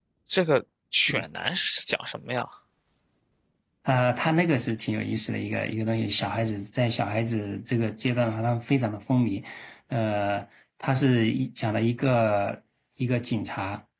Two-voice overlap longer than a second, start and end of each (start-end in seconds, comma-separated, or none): none